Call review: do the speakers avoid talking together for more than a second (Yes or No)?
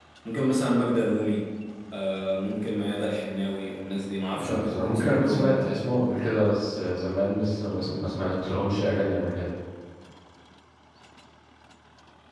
No